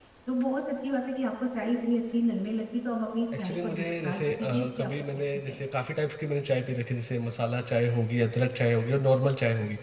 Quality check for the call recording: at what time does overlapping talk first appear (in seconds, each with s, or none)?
3.3 s